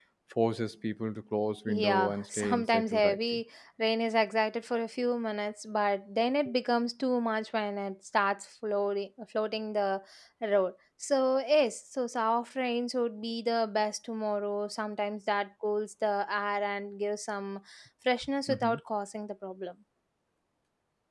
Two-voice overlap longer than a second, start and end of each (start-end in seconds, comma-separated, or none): 1.7-3.4